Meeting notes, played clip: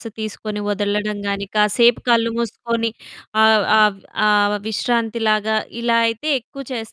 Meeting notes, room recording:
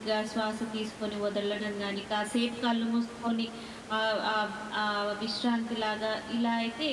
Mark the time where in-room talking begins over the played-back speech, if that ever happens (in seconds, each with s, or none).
none